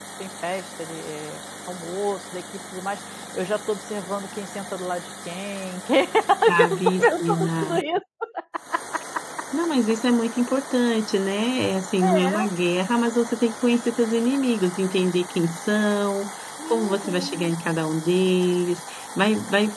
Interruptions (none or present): present